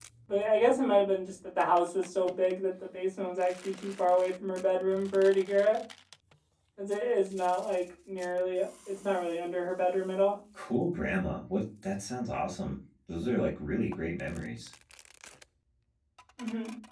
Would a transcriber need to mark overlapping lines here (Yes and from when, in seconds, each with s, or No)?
No